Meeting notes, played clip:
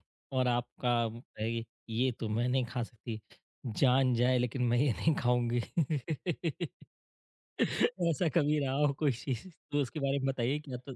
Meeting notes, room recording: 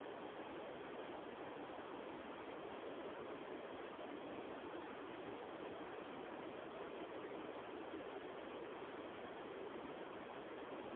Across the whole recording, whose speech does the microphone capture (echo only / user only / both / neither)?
neither